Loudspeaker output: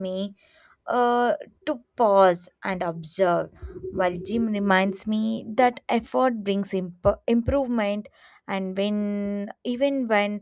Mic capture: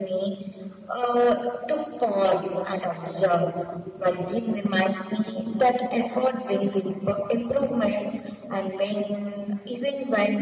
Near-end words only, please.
none

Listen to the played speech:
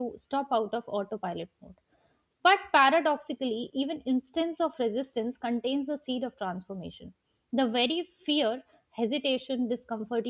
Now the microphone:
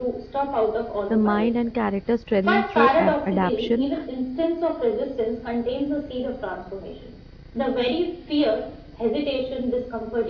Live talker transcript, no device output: the mind and character strengthen through ab- adaption.

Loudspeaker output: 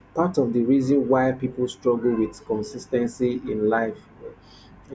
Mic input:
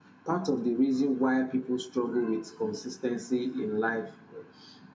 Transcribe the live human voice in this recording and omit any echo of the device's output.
none

